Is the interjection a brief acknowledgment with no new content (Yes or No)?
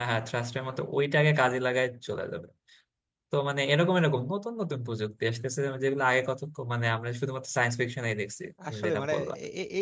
No